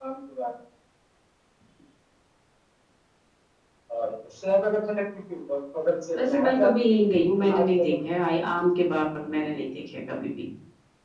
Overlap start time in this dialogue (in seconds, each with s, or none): 6.2 s